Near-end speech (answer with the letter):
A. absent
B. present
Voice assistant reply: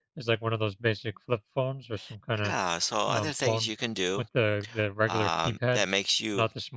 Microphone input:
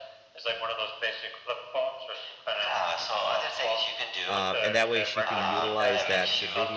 B